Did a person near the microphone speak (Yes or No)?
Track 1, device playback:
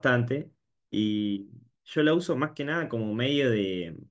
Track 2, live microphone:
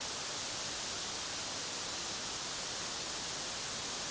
No